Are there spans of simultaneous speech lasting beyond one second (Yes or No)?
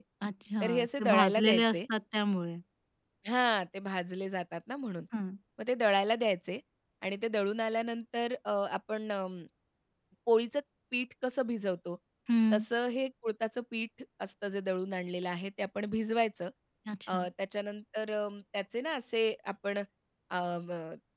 Yes